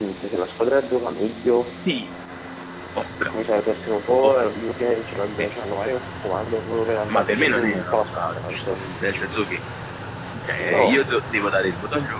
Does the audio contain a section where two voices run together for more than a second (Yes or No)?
Yes